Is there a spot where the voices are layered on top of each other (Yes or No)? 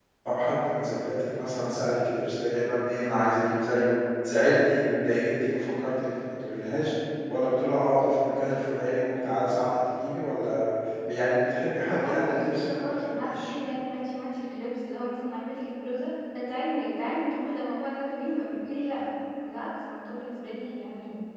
Yes